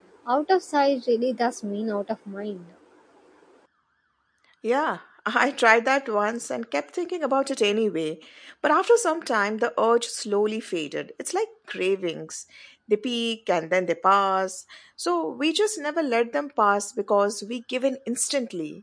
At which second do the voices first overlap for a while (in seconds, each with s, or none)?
none